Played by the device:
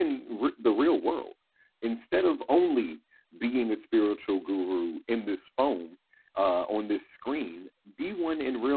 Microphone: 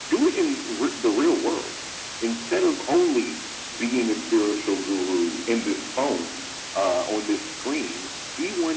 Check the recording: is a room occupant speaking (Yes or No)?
No